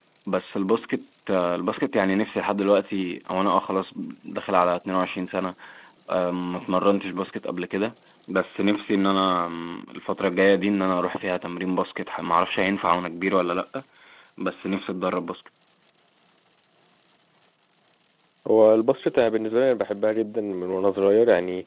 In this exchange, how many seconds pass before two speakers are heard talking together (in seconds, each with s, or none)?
none